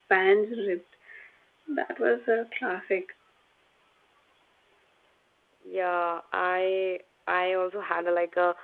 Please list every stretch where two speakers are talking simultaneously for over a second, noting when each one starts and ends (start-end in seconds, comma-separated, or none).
none